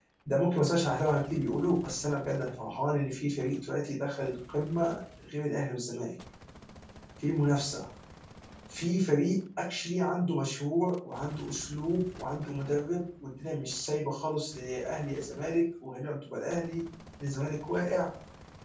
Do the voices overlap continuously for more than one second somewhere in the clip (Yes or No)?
No